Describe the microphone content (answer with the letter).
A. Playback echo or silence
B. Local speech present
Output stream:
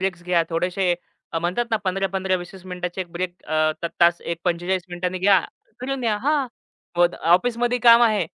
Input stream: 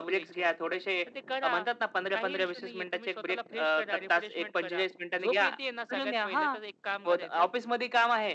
B